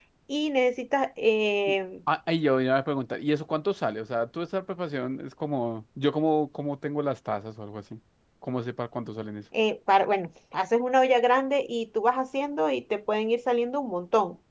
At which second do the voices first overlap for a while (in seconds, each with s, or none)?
none